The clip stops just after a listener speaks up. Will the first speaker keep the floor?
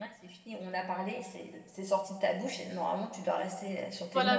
No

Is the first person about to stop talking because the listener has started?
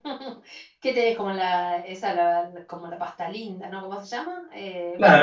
Yes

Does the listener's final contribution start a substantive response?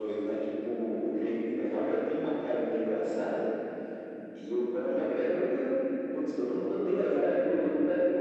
Yes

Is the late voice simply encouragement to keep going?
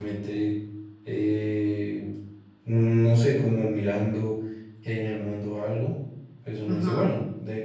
Yes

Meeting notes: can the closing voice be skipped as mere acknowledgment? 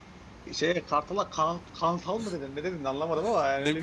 No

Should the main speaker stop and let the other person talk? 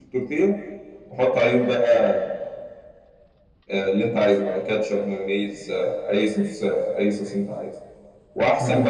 No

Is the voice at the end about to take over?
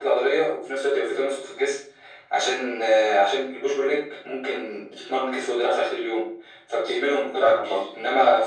No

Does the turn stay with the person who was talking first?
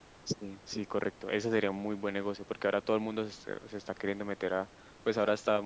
Yes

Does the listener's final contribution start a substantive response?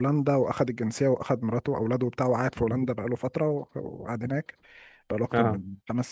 No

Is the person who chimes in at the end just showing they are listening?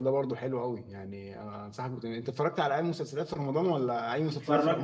No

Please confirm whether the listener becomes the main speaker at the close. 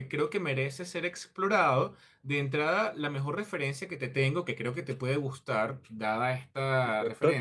No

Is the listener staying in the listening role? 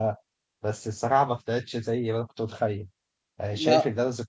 Yes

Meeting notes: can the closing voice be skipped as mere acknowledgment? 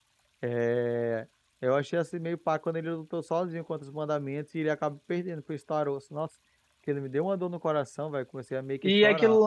No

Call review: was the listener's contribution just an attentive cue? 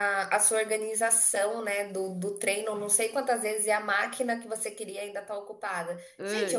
Yes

